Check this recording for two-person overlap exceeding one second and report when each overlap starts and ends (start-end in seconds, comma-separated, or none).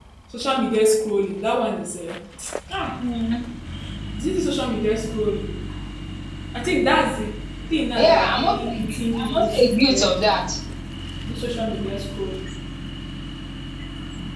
8.0-10.2